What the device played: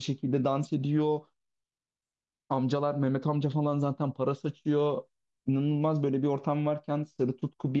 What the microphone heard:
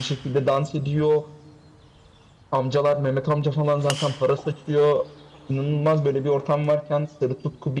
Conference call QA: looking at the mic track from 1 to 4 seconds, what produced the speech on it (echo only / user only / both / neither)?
echo only